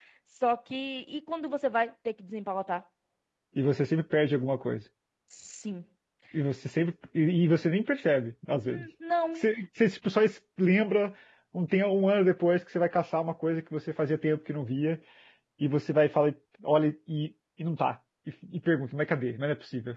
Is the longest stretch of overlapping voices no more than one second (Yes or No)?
Yes